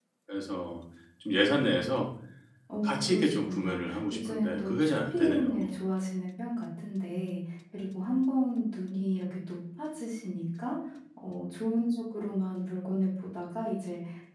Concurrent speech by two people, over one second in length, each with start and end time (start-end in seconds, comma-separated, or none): 2.8-5.7